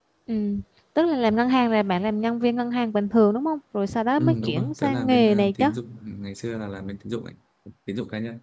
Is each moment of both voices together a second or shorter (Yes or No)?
No